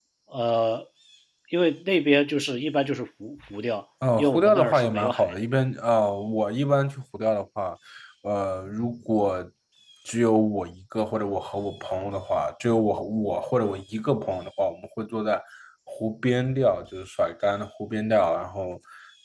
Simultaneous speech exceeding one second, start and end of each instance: 4.2-5.4

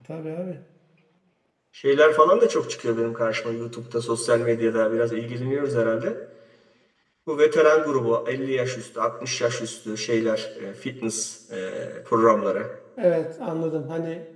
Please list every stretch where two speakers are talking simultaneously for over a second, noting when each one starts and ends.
none

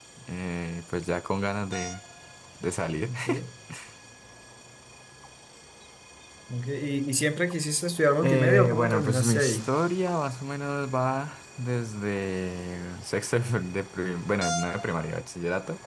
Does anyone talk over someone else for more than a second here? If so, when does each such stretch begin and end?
8.2-9.7

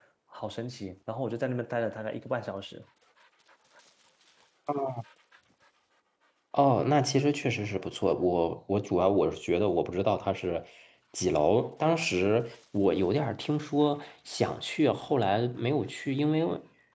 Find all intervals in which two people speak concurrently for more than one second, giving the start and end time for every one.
none

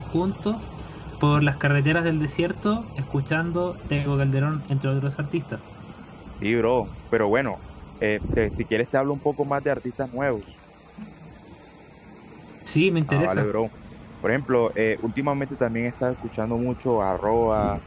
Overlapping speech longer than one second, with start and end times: none

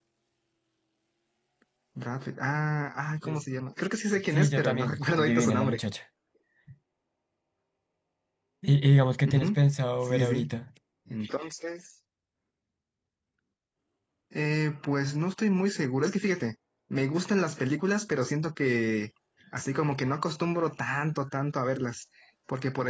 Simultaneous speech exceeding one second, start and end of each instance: 4.3-5.8

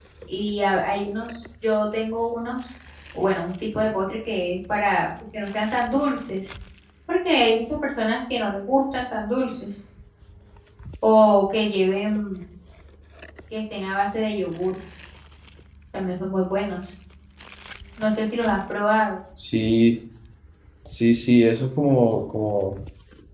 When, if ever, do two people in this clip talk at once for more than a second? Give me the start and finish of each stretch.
none

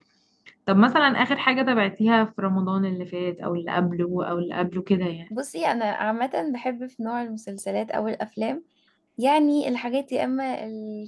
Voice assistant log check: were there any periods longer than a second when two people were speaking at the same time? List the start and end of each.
none

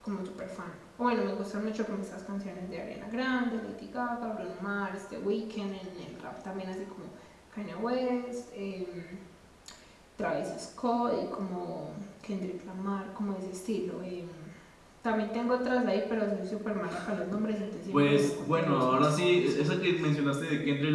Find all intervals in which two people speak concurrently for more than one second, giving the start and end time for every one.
17.9-19.6

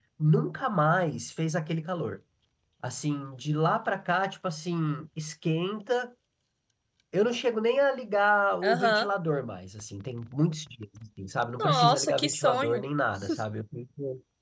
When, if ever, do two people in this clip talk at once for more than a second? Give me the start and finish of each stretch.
11.6-12.8

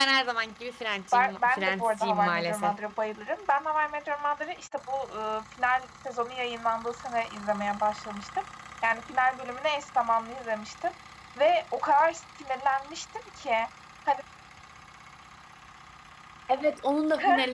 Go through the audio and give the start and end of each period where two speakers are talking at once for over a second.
1.1-2.7

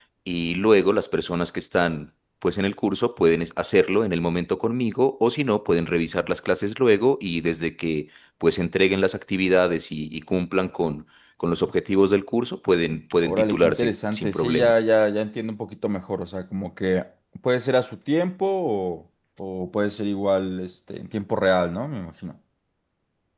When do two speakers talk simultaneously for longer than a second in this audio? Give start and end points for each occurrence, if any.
13.2-14.7

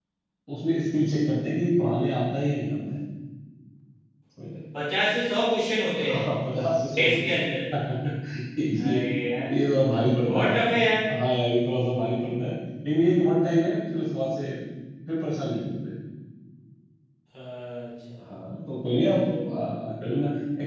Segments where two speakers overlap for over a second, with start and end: none

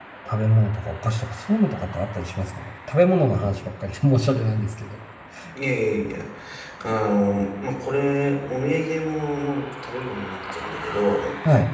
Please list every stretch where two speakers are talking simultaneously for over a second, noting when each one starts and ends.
none

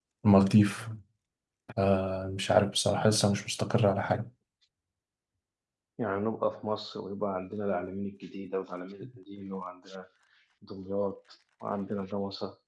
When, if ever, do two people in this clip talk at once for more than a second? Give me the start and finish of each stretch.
none

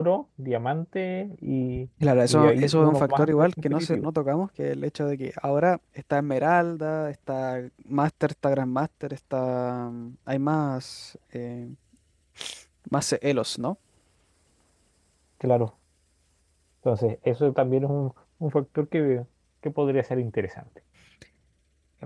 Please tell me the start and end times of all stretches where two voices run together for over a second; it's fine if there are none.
2.3-4.0

